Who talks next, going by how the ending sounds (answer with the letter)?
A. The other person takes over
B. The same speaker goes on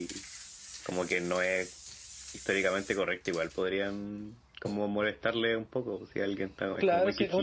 A